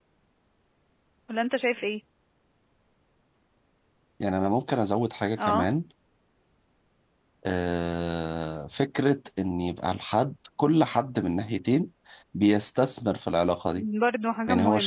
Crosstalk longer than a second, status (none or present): none